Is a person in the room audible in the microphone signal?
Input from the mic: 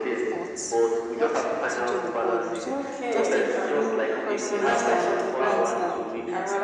Yes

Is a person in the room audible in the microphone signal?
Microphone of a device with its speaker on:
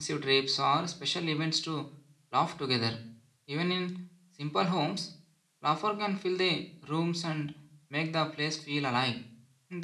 Yes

